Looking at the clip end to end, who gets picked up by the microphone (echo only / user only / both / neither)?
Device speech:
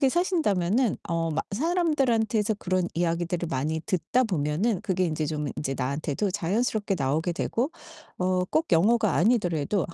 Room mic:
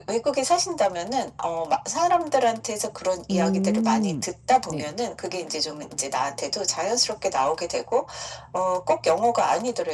both